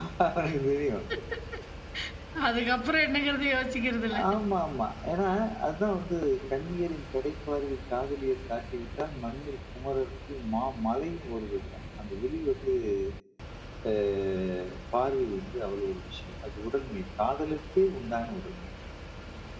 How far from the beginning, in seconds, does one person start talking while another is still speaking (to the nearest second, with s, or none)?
none